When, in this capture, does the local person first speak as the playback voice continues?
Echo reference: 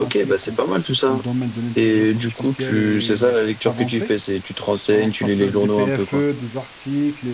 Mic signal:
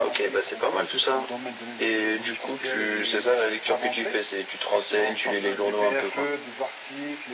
none

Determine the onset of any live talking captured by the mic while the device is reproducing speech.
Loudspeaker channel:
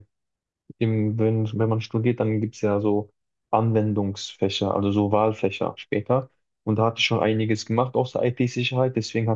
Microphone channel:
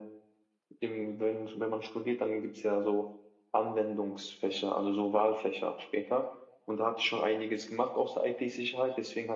none

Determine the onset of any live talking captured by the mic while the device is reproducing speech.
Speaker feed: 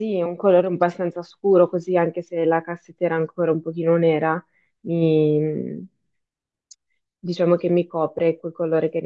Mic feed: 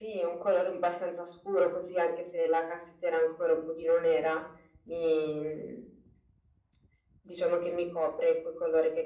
none

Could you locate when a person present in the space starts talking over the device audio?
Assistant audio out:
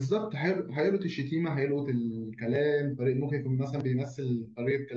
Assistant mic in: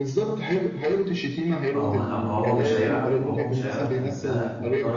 1.7 s

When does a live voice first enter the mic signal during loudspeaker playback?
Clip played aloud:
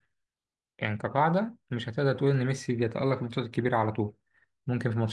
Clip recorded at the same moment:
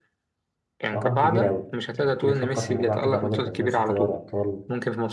0.9 s

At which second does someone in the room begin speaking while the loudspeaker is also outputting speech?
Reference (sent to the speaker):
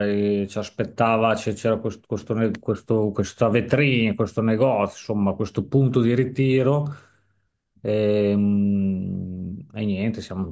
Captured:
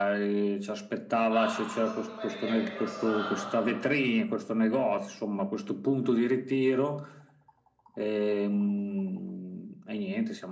1.3 s

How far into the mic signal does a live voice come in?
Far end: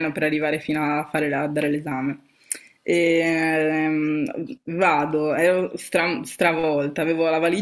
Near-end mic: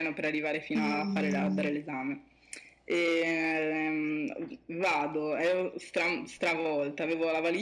0.8 s

